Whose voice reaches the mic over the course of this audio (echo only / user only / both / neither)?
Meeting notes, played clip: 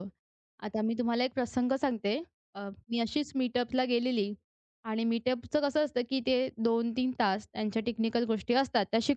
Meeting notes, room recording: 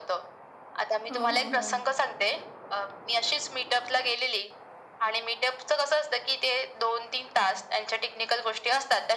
both